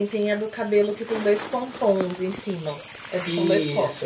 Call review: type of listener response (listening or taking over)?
taking over